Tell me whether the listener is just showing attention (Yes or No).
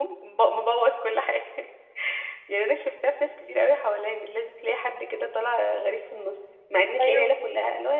Yes